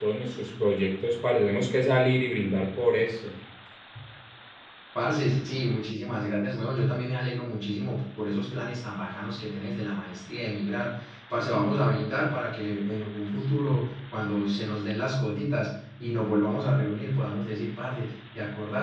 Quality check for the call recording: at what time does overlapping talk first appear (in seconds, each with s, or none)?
none